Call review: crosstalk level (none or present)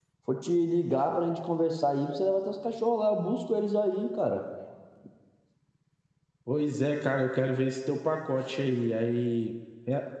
none